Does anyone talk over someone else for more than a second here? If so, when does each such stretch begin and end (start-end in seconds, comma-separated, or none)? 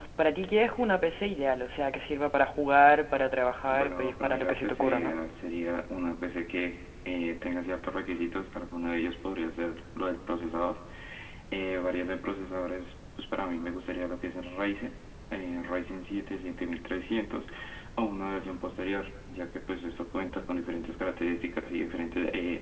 3.7-5.1